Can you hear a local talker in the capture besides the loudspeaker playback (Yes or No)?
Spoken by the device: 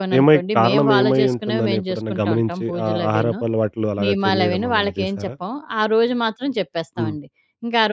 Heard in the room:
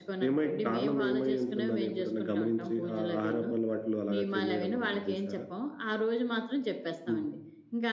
No